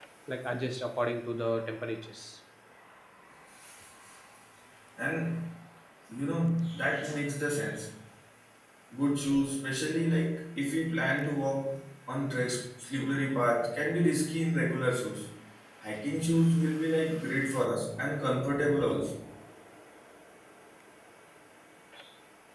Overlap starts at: none

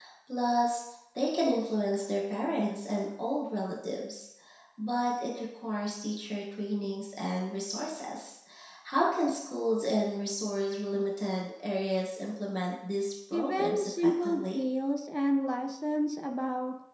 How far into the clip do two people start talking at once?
13.3 s

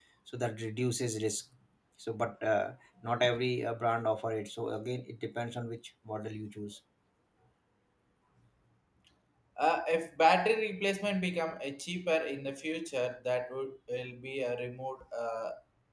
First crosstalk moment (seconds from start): none

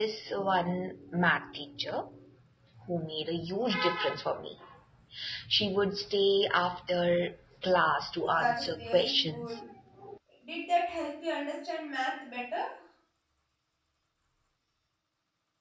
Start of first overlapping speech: 8.2 s

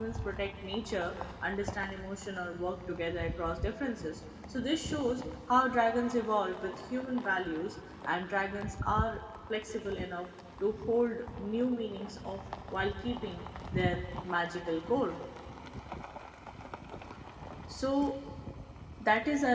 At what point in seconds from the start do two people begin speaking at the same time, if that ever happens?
none

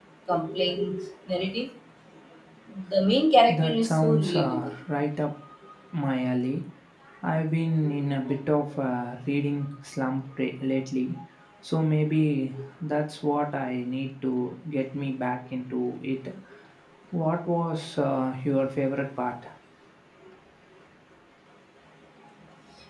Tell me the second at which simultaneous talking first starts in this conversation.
3.5 s

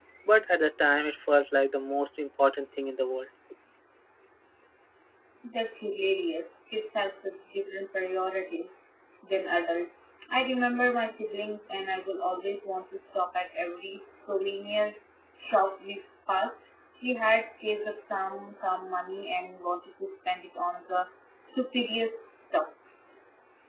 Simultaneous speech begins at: none

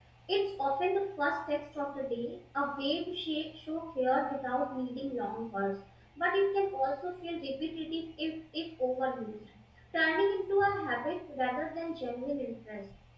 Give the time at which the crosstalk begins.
none

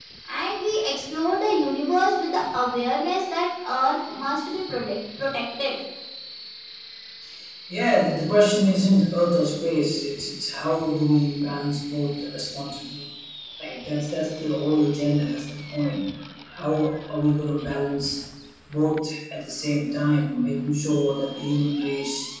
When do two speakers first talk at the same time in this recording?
none

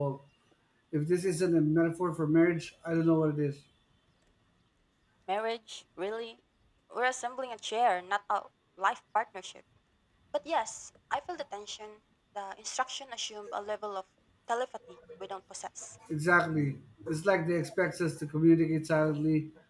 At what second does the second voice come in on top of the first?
none

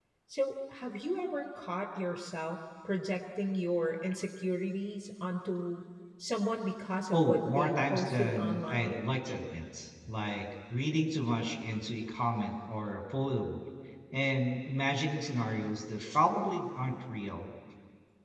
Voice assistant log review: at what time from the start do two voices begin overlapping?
7.1 s

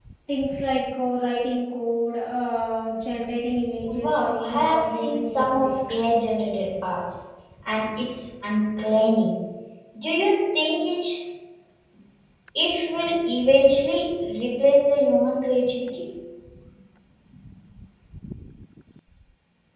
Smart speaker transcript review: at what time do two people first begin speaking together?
3.9 s

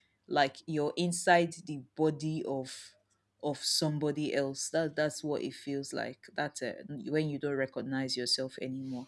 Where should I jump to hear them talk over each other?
none

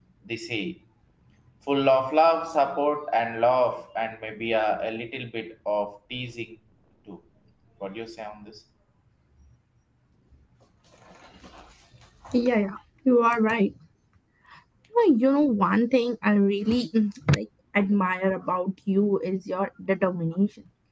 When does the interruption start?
none

